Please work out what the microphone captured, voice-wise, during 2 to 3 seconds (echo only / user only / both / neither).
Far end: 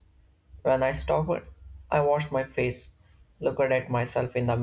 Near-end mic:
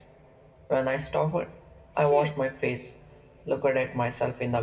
both